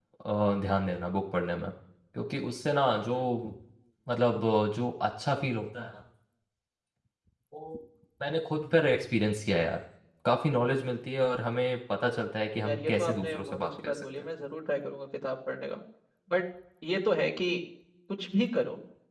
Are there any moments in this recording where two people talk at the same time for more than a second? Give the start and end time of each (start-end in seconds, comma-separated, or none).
12.7-14.1